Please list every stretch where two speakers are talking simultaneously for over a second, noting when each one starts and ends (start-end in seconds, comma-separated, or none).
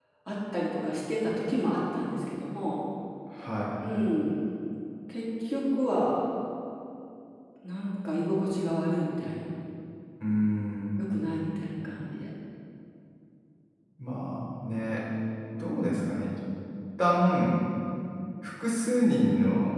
none